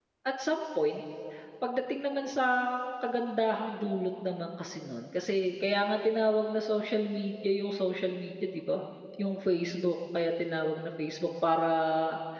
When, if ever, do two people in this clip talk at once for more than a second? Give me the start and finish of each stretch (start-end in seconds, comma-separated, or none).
none